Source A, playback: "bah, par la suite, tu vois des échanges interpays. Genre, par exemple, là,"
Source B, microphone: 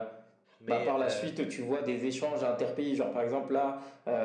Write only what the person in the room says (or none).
mais euh,